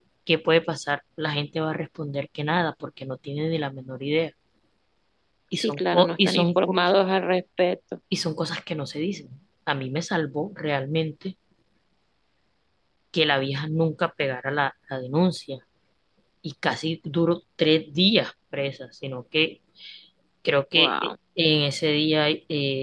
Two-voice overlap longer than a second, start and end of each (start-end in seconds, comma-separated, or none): 5.6-6.9